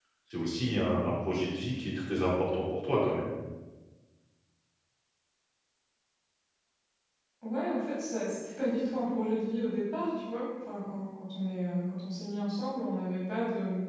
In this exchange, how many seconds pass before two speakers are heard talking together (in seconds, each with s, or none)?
none